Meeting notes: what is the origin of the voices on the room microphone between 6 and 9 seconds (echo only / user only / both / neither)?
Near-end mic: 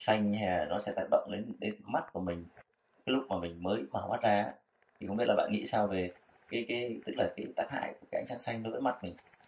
user only